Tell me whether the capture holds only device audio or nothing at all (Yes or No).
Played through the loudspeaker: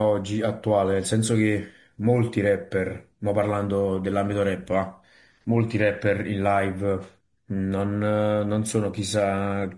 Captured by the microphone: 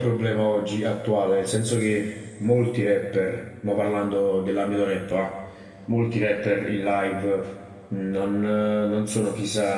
Yes